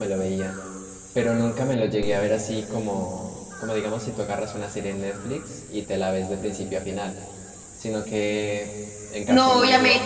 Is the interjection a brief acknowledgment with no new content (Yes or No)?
No